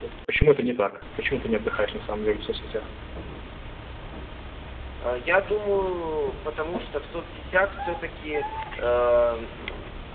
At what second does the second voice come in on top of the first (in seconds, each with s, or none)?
none